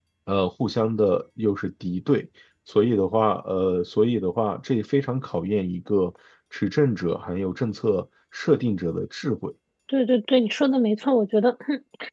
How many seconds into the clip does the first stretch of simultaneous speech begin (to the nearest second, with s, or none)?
none